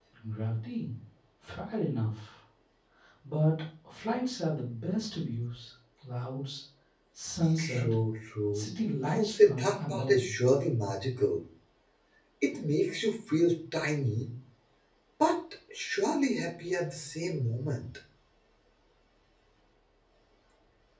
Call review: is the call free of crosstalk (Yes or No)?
No